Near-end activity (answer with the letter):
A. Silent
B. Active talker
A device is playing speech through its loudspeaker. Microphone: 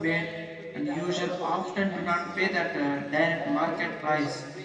B